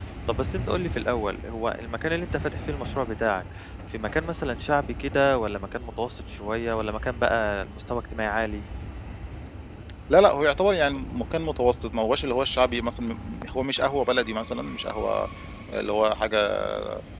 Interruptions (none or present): none